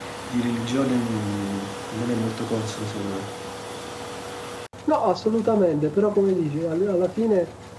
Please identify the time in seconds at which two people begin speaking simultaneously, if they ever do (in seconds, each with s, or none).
none